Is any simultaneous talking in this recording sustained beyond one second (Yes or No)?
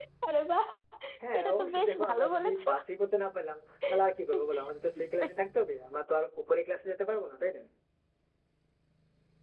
Yes